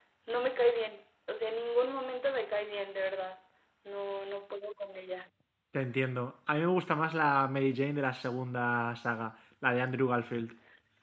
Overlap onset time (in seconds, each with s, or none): none